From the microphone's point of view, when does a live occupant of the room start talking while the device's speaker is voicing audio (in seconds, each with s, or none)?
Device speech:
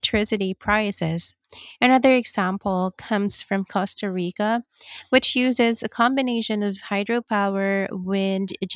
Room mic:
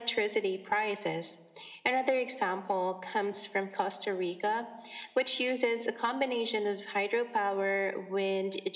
none